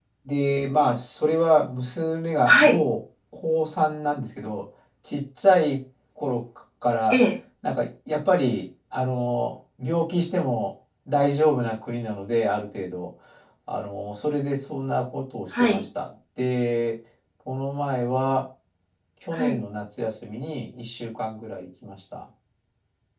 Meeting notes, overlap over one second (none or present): none